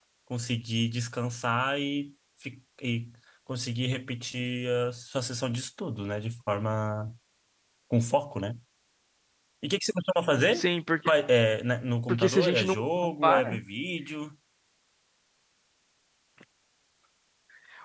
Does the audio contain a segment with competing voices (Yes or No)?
Yes